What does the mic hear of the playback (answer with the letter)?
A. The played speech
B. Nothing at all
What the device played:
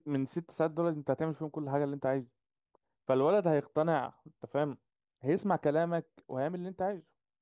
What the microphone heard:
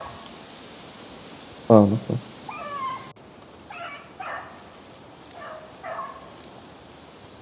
B